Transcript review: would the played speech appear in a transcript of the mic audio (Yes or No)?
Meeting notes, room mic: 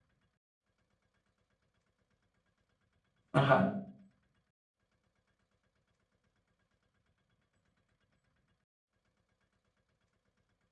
No